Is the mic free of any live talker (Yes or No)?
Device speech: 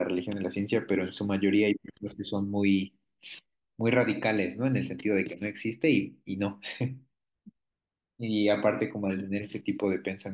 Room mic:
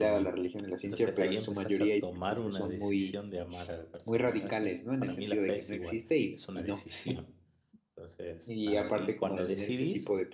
No